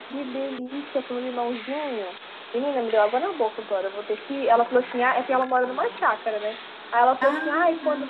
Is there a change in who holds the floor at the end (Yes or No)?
No